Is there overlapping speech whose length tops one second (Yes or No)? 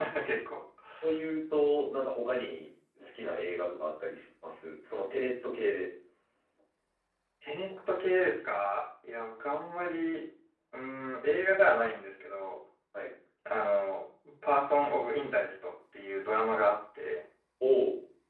No